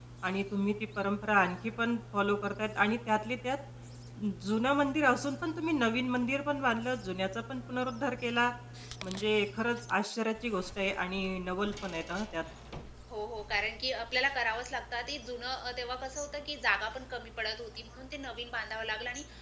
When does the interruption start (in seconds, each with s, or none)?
none